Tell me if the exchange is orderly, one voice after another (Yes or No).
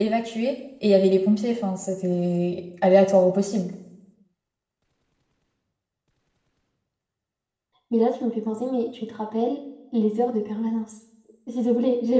Yes